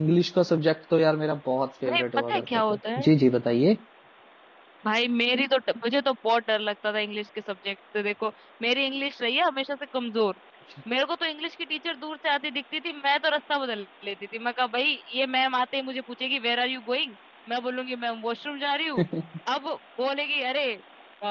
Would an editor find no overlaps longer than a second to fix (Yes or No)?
No